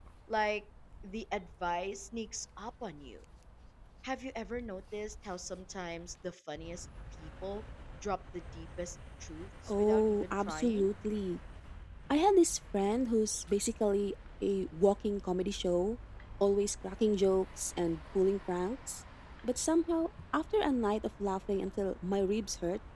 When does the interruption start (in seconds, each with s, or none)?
9.7 s